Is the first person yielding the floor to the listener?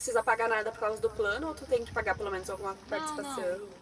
Yes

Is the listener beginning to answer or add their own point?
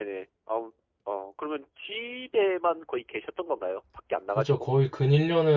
Yes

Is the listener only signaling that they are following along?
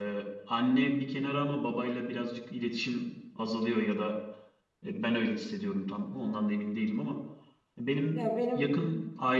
Yes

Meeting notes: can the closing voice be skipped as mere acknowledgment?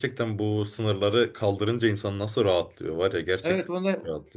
No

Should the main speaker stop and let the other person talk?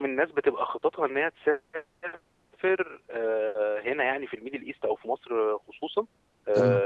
No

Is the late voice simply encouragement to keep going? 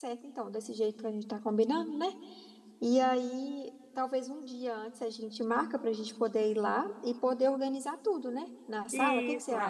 No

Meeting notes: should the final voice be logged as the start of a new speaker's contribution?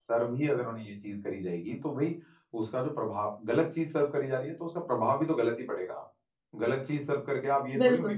No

